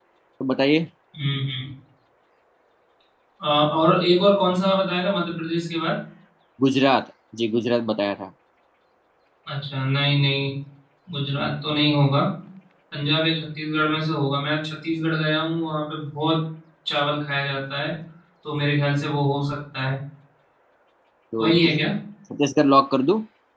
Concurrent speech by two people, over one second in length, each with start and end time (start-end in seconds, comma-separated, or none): none